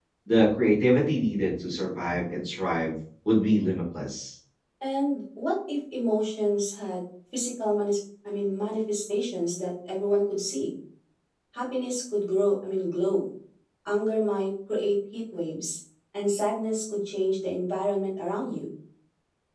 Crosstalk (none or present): none